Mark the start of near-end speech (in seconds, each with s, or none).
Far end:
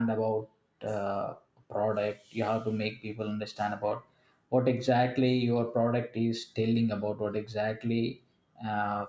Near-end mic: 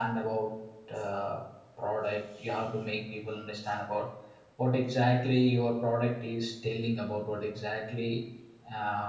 none